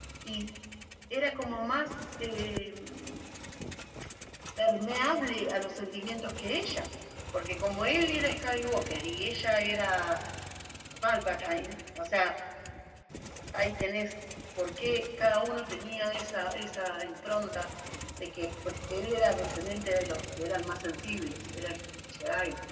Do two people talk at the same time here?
No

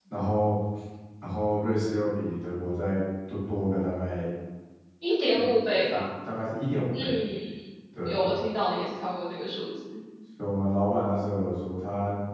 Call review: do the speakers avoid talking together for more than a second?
Yes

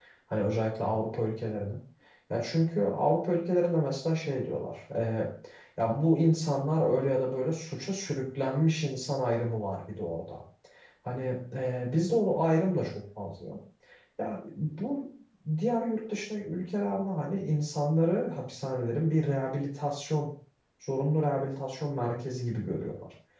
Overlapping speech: No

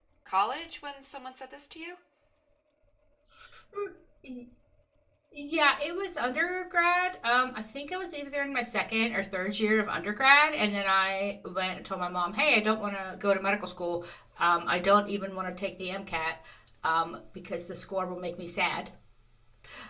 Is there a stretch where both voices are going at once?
No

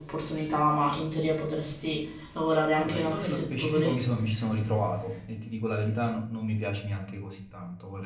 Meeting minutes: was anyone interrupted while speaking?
Yes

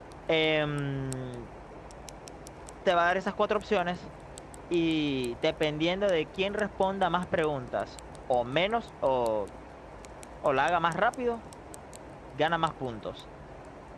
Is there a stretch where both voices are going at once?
No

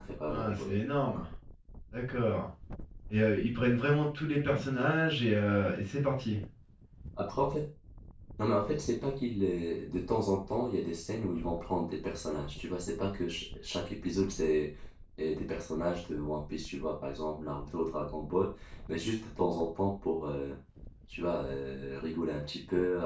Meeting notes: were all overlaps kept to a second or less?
Yes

